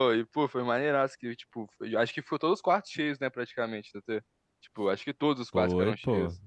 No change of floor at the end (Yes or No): No